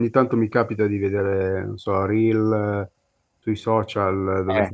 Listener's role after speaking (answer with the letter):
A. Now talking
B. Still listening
B